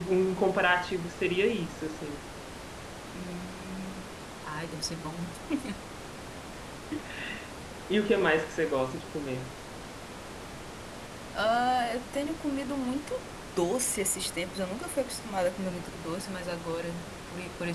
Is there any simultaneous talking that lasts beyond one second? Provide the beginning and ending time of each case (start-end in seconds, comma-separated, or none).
none